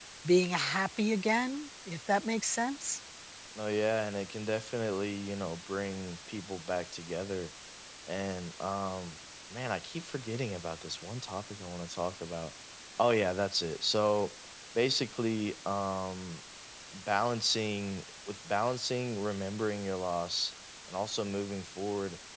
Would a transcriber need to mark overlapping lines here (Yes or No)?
No